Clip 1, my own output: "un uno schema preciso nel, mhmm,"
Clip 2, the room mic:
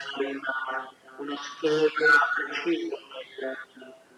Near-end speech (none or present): none